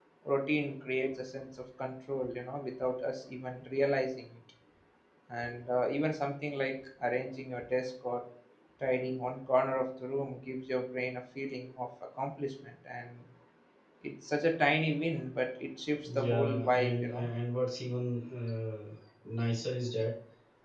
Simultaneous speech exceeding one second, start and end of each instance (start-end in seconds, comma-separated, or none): 16.1-17.2